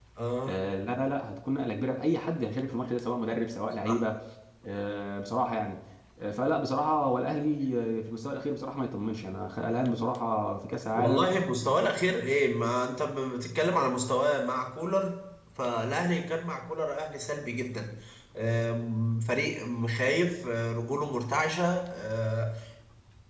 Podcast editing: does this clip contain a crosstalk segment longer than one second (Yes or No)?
No